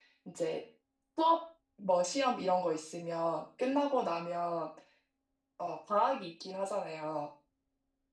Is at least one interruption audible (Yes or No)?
No